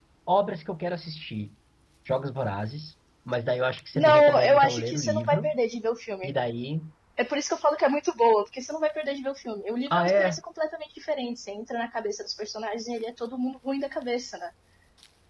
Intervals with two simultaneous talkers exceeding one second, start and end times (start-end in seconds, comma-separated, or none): 4.0-5.5